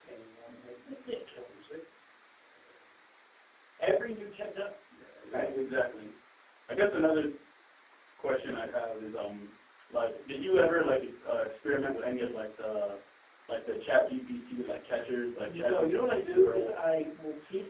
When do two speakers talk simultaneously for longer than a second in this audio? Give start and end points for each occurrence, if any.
15.4-16.7

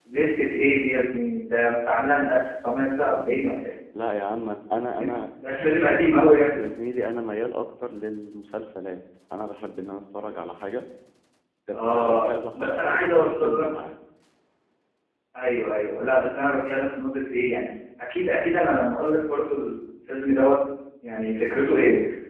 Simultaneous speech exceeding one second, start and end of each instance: 11.7-13.7

